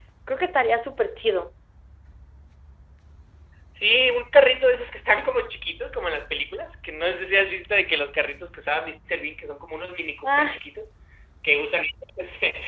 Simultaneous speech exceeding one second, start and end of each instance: none

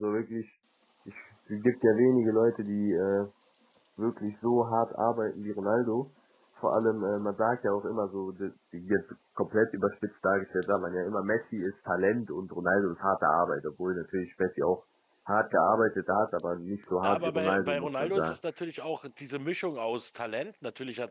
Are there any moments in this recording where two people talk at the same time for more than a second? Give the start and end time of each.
17.0-18.3

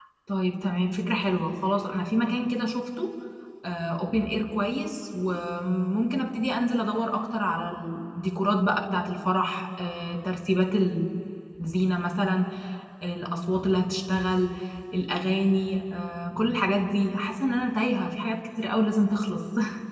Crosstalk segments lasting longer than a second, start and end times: none

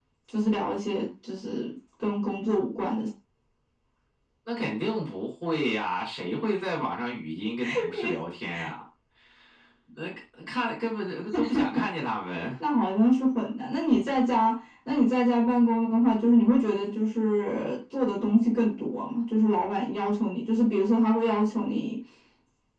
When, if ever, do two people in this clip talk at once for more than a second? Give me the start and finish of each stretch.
none

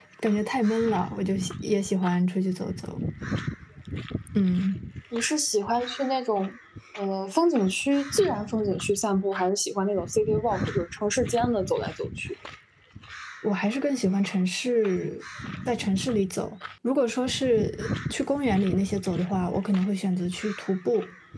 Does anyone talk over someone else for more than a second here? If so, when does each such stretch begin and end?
none

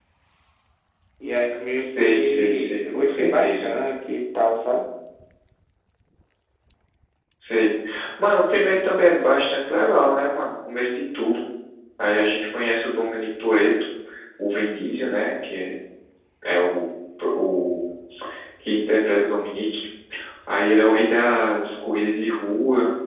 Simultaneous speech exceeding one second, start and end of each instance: 1.8-3.7

